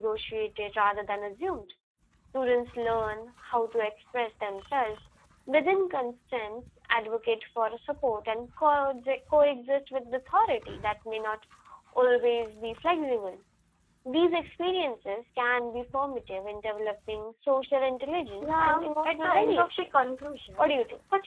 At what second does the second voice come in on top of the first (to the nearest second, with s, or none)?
18 s